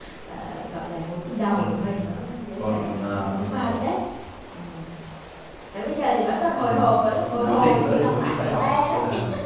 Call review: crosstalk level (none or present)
present